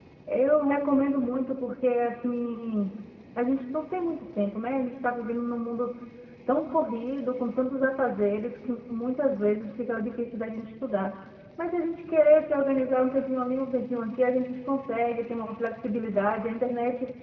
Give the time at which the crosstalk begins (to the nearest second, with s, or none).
none